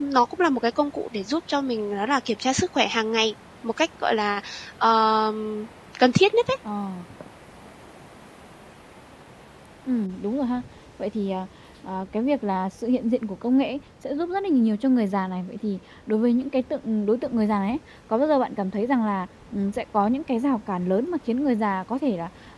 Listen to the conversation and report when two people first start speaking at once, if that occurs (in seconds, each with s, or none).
none